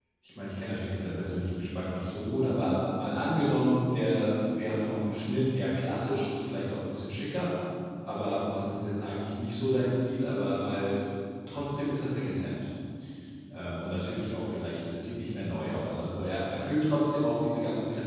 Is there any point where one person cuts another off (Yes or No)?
No